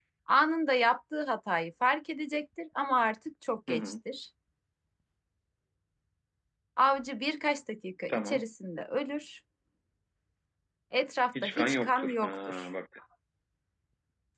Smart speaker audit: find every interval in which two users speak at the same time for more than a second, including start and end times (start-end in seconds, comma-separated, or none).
11.4-12.7